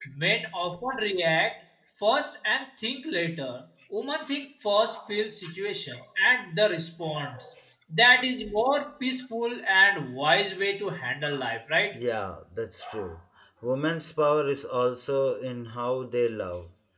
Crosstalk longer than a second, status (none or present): none